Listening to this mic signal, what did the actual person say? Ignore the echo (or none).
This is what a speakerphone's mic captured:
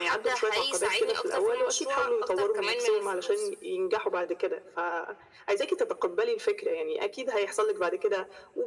none